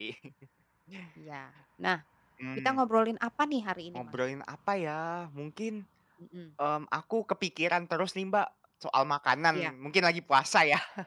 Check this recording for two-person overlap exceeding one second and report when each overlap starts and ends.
none

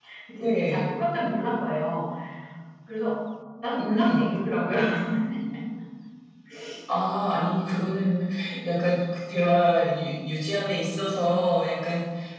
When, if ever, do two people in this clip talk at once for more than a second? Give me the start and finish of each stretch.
none

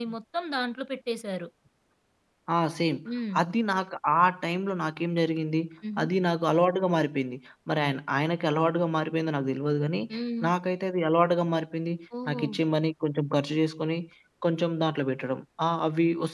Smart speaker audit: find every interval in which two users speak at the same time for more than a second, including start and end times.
none

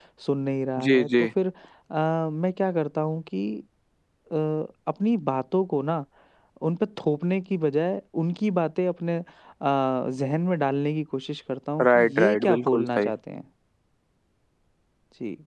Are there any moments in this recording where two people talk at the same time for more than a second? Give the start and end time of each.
11.8-13.1

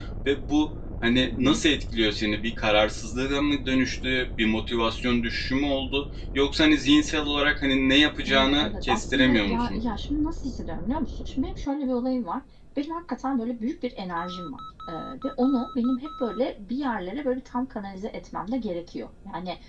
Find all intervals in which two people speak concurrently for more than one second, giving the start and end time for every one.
8.3-9.8

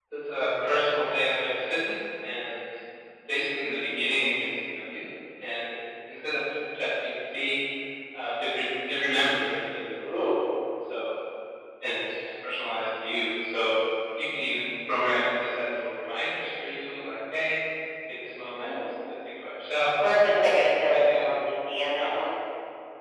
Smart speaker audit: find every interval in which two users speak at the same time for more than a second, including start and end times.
20.0-21.3

